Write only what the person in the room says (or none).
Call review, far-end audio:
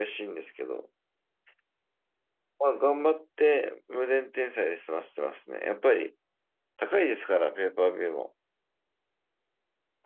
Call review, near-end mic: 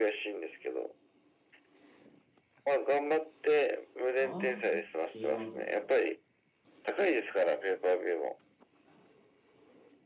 ああ、K1 とかですか。